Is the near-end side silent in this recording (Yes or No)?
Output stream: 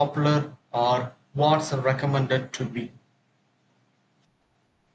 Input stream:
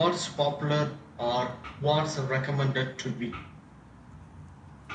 Yes